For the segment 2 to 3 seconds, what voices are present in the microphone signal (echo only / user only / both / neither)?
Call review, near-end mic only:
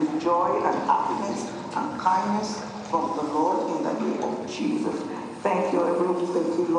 echo only